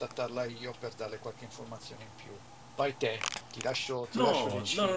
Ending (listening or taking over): taking over